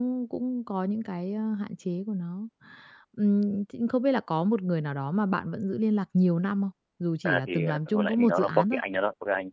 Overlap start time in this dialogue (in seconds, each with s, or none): 7.2 s